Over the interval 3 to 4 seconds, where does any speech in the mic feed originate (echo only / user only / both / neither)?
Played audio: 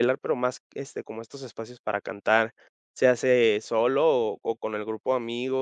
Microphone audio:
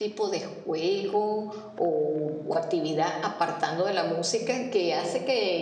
user only